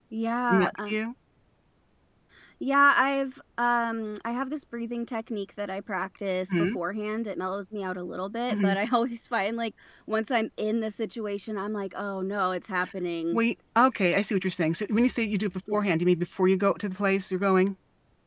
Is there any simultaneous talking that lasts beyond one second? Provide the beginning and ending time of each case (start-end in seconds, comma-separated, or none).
none